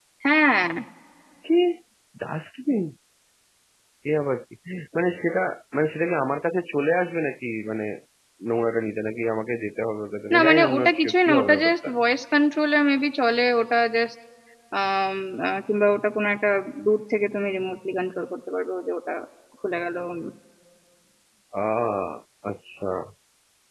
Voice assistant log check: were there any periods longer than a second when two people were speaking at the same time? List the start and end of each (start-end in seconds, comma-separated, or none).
10.3-11.9